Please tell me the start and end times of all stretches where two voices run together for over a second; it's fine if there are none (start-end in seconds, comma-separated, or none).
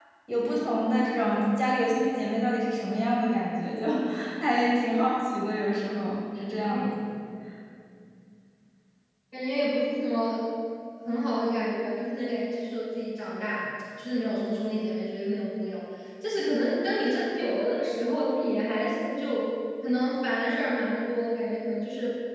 none